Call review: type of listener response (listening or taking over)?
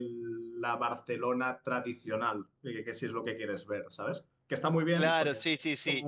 taking over